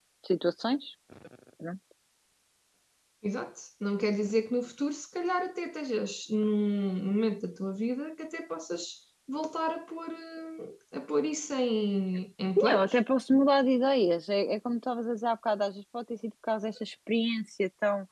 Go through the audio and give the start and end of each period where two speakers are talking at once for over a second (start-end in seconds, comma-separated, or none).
none